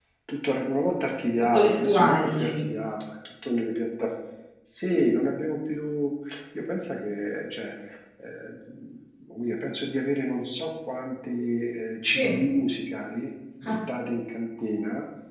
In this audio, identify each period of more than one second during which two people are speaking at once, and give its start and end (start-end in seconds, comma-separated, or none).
1.4-2.6